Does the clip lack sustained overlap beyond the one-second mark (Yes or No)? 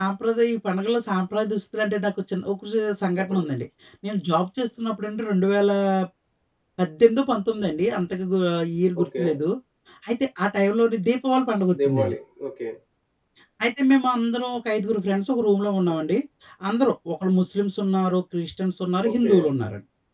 Yes